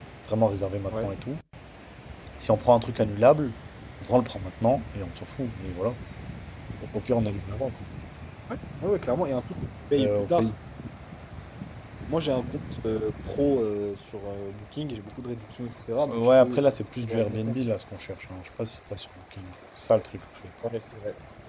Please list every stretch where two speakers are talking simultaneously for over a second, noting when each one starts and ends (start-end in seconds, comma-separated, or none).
16.1-17.6